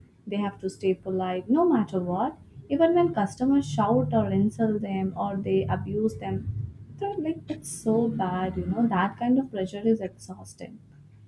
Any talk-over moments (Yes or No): No